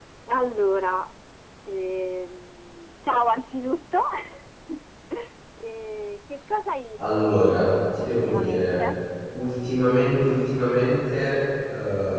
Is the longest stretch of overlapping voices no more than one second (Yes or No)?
No